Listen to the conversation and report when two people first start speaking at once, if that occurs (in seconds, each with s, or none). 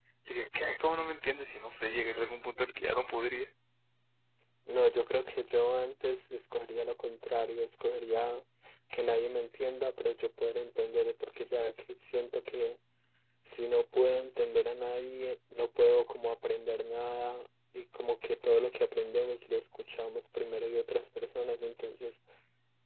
none